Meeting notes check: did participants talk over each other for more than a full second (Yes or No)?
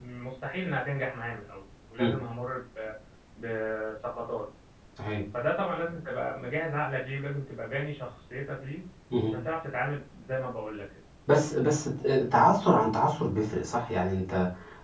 No